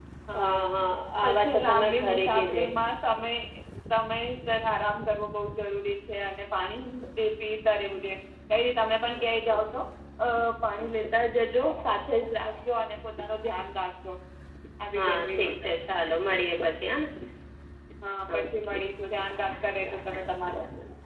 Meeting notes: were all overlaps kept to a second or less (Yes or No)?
No